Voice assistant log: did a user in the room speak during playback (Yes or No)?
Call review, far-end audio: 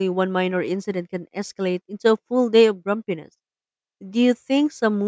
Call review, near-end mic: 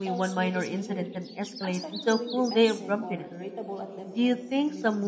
Yes